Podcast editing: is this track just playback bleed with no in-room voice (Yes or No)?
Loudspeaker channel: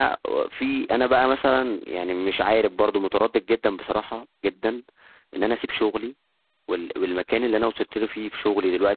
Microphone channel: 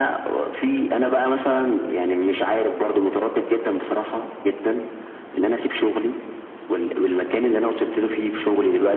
Yes